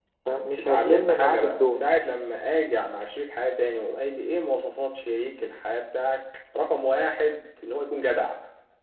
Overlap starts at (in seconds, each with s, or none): 0.6 s